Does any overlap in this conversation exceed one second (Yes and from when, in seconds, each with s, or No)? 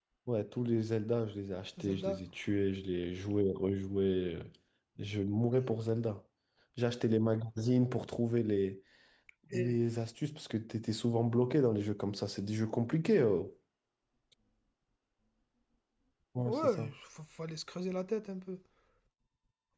No